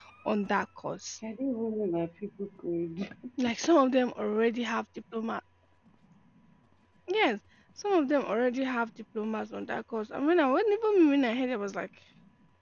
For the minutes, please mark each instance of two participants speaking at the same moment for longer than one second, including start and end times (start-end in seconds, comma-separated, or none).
none